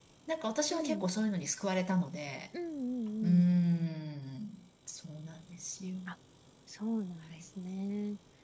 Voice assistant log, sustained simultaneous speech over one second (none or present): none